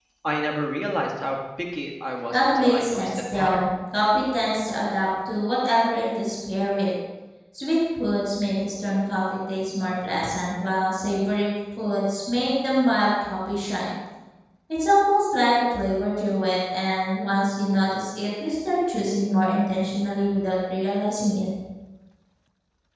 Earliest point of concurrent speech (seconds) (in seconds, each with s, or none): 2.3 s